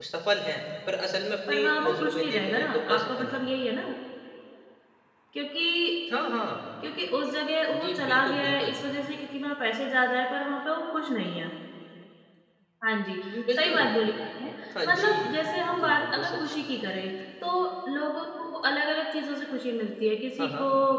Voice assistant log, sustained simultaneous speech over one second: present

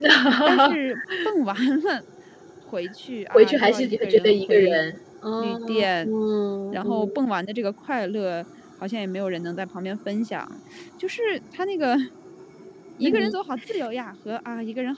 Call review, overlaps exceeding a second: present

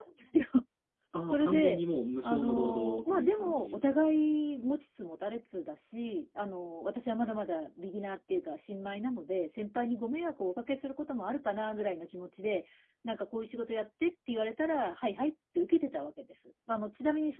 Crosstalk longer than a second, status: present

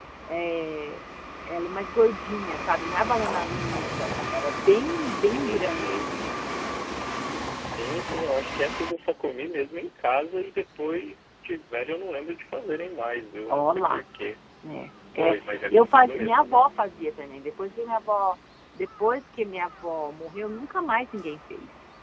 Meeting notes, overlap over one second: present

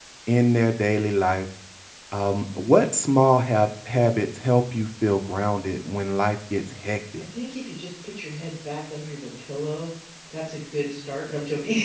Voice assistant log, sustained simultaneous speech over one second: none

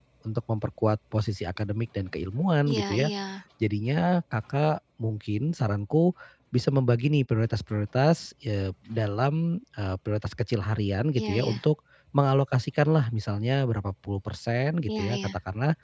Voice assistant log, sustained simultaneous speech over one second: none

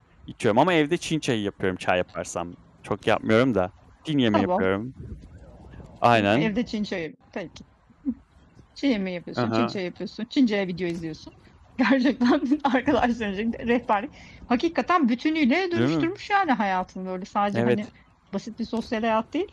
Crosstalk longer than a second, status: none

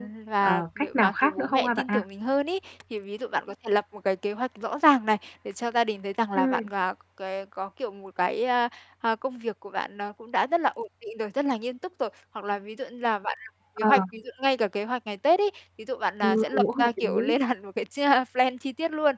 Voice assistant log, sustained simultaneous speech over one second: present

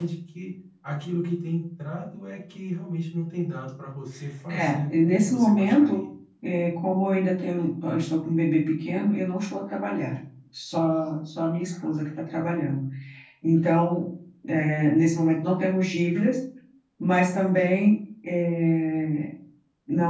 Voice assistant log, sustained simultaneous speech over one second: present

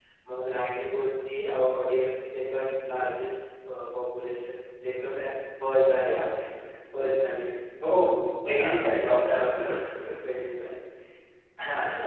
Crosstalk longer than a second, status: none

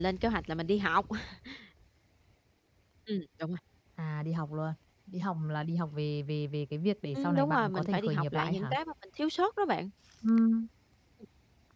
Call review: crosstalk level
present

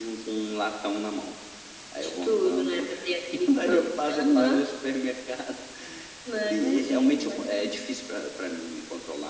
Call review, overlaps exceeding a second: present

